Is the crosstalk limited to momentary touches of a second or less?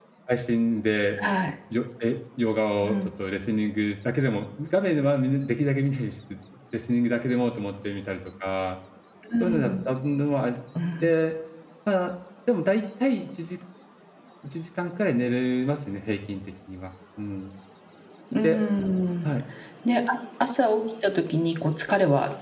Yes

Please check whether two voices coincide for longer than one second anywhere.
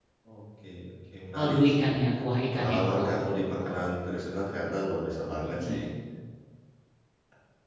Yes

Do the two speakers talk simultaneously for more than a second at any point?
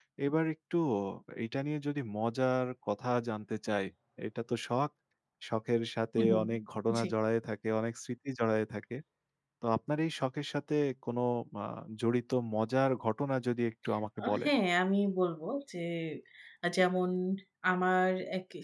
No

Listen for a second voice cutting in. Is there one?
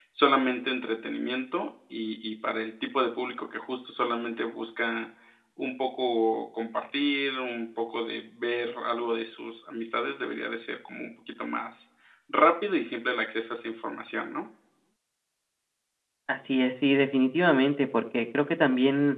No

